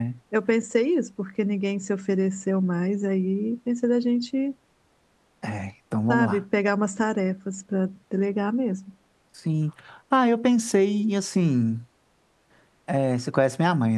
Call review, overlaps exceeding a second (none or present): none